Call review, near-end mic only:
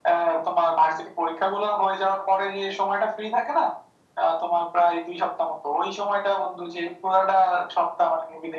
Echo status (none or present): present